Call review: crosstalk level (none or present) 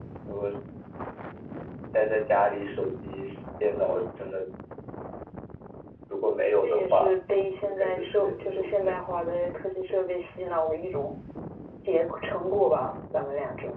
present